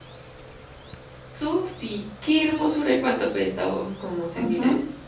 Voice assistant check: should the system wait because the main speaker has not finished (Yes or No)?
No